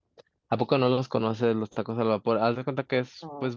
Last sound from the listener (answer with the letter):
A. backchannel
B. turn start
A